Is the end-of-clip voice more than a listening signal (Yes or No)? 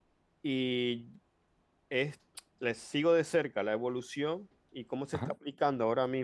No